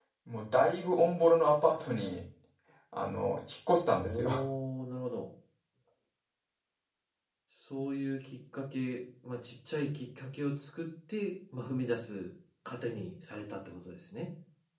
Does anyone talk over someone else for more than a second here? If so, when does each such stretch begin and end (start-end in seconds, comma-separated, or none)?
none